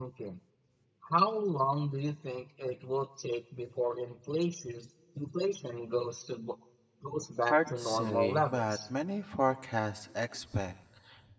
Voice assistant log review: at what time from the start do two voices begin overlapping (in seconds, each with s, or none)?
7.5 s